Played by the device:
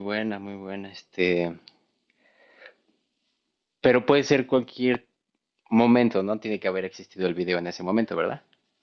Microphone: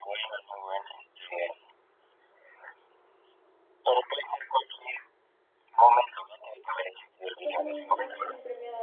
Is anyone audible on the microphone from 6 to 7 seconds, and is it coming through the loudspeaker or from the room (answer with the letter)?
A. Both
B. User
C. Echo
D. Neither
C